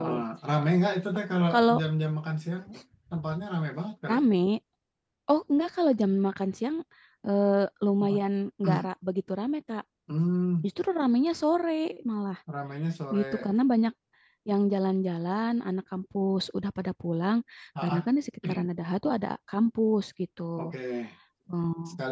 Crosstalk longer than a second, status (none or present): none